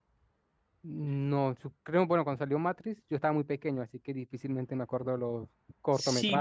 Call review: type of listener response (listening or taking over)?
taking over